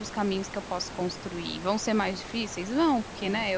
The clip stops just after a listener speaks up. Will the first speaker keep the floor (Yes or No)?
Yes